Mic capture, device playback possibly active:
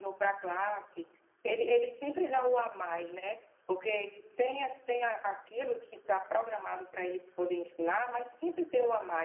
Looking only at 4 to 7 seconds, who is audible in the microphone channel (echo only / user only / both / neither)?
user only